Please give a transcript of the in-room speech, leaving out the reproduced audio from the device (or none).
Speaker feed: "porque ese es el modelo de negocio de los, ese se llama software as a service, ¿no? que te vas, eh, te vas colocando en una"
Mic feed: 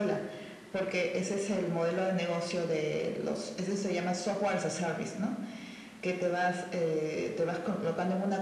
none